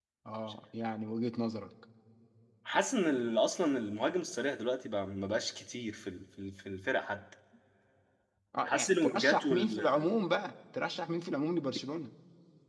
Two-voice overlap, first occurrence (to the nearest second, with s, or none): 9 s